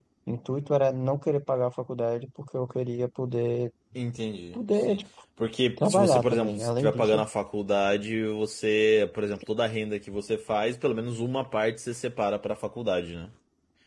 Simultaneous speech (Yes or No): Yes